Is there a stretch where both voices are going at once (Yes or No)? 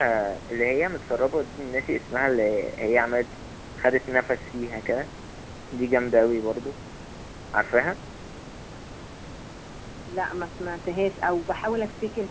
No